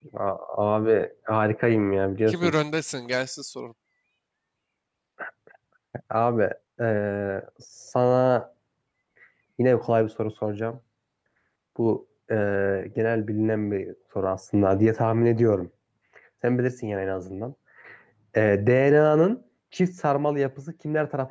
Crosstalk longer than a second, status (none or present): none